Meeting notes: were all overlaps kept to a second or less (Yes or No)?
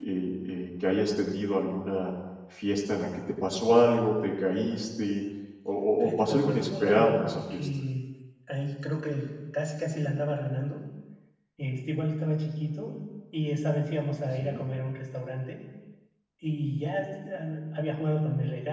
No